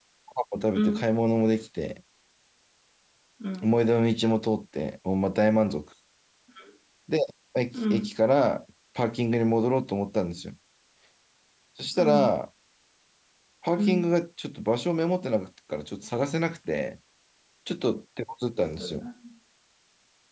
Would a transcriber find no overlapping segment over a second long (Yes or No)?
Yes